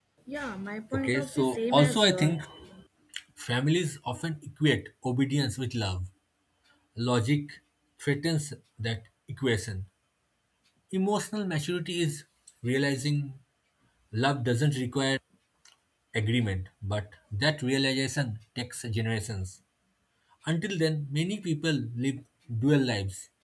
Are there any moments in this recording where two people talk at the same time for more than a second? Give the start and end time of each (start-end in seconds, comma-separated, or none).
0.9-2.3